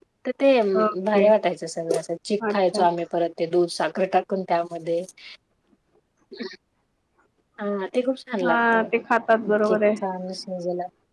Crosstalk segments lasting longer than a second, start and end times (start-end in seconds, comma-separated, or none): none